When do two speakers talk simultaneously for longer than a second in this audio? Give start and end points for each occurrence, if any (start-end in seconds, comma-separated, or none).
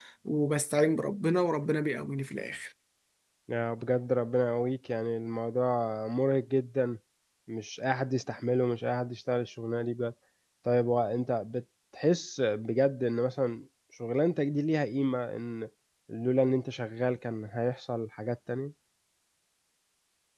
none